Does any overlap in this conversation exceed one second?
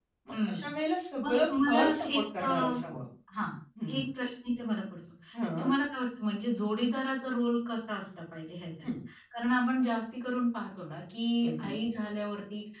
Yes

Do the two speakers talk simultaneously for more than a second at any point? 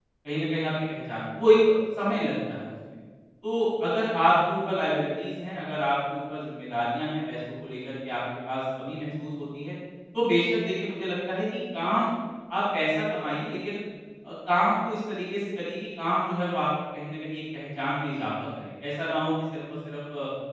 No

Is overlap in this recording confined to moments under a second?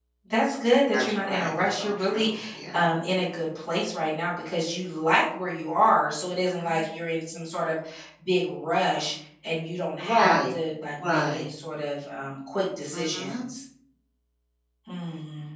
No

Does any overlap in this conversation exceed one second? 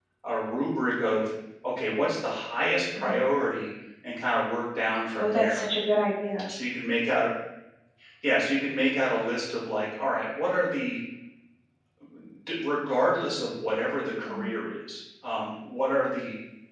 No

